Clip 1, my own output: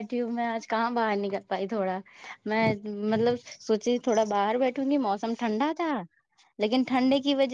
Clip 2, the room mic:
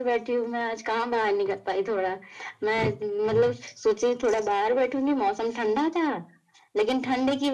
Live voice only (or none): none